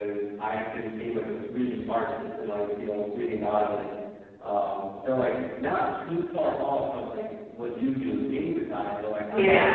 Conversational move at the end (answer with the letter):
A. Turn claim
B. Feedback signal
B